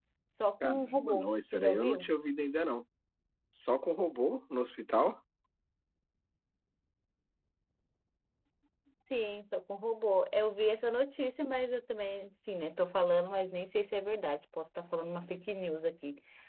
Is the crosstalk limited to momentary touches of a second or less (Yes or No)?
No